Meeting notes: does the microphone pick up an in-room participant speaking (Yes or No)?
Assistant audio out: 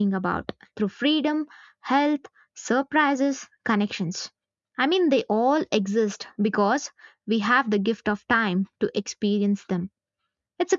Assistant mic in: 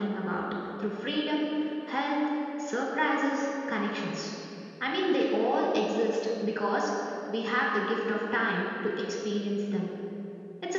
No